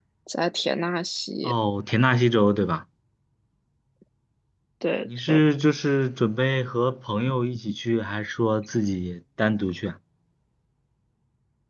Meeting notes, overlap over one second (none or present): none